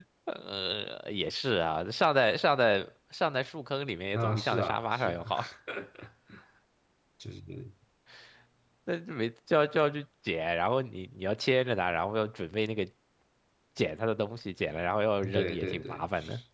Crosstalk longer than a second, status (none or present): present